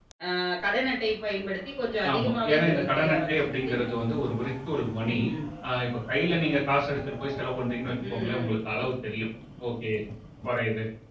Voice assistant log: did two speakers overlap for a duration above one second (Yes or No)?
Yes